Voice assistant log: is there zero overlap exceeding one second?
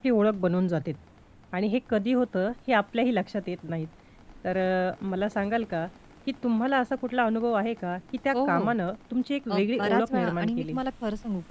No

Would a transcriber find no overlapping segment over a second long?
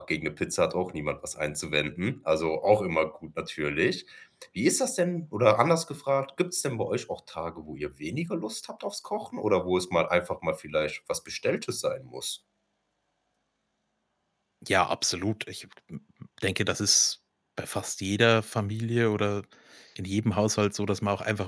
Yes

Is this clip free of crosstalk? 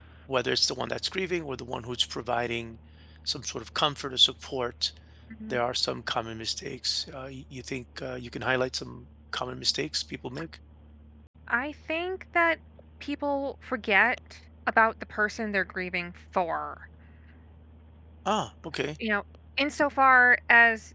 Yes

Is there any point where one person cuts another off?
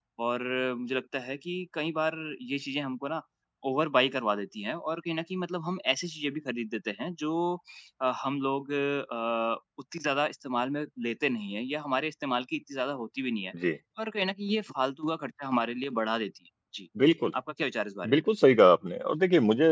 No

